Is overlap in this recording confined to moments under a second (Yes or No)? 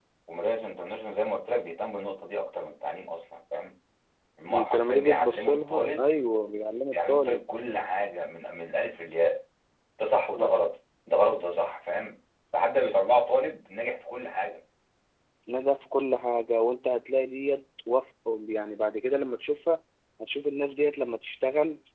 No